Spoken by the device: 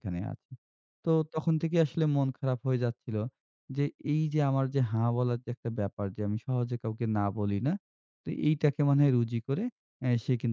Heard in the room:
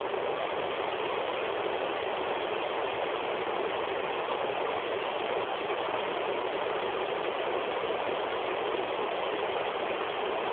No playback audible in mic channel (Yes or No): Yes